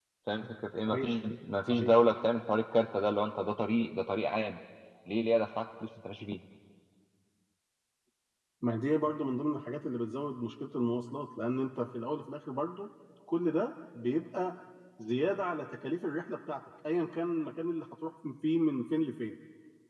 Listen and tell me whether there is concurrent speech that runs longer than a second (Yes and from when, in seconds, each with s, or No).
No